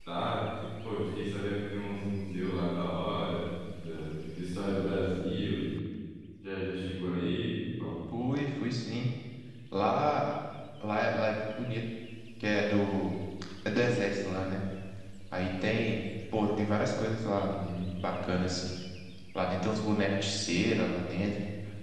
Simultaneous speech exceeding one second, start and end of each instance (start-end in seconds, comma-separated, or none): none